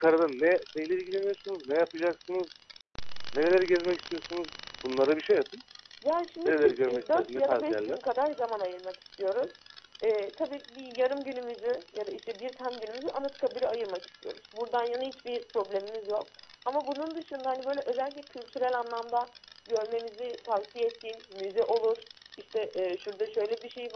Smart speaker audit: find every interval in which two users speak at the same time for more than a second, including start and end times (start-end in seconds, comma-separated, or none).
6.4-8.0